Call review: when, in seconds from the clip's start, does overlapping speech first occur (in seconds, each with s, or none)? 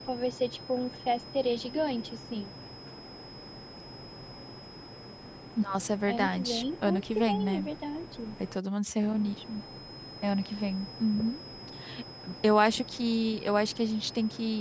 6.1 s